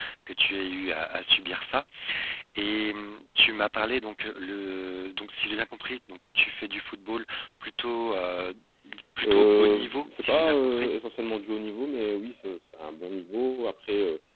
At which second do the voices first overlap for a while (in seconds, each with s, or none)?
9.2 s